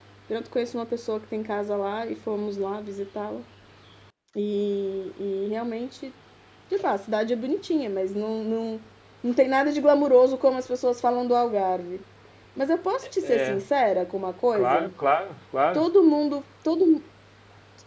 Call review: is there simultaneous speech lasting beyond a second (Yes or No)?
No